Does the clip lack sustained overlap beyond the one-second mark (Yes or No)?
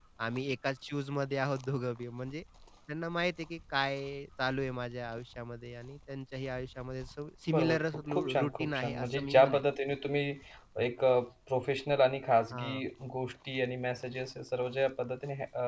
No